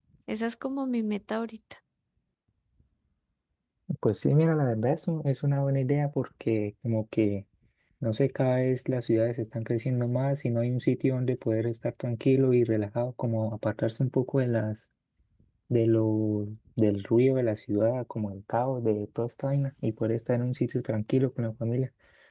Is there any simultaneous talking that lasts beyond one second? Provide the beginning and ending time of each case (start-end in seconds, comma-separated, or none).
none